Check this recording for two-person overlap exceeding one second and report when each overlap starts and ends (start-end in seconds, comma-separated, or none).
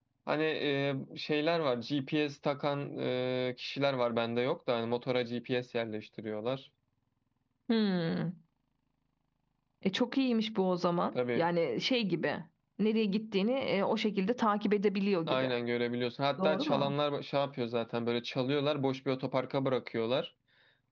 none